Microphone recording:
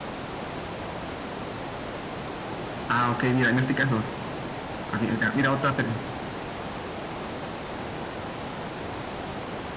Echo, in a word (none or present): none